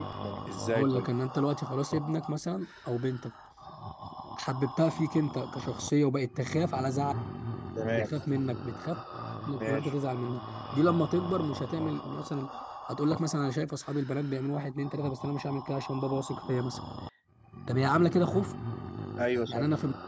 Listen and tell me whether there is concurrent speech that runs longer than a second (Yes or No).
No